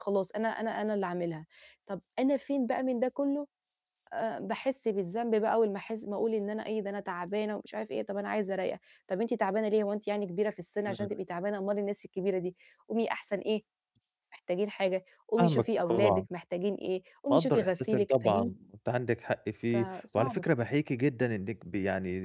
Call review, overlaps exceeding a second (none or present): present